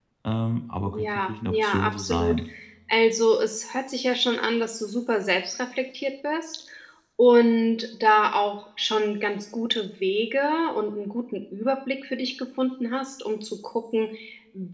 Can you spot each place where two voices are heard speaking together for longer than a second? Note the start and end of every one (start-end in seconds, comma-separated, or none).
0.8-2.4